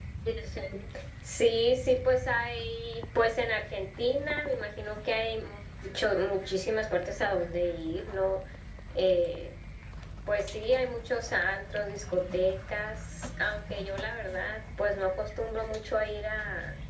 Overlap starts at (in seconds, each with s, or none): none